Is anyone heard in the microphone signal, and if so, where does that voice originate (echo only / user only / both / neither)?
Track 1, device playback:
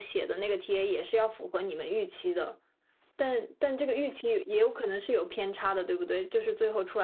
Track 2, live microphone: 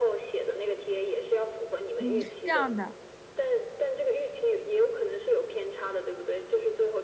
both